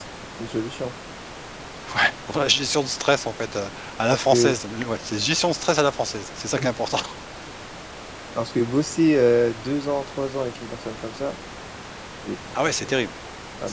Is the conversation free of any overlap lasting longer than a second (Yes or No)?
Yes